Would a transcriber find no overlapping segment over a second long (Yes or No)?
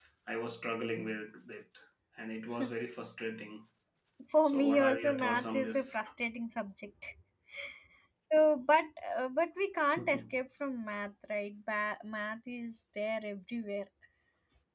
No